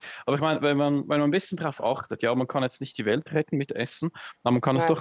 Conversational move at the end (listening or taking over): listening